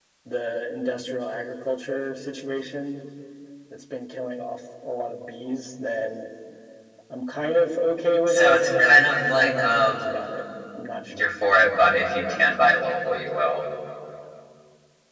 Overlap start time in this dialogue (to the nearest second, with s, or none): 8 s